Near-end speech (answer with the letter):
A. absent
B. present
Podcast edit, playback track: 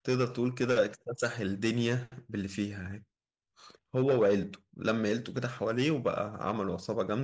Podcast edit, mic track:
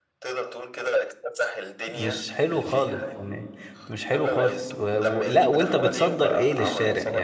B